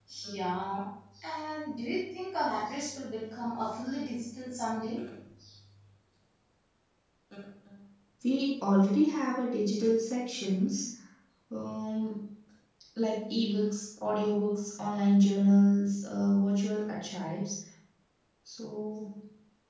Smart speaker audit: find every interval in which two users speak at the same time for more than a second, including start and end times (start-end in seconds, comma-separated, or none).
none